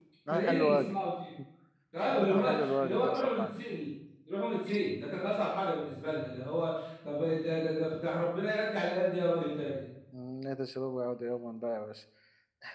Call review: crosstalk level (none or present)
present